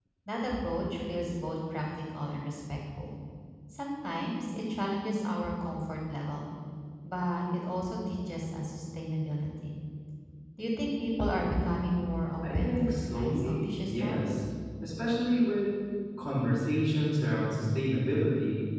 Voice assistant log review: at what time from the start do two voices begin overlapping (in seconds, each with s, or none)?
12.3 s